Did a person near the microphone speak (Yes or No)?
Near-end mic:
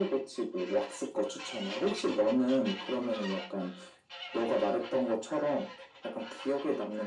No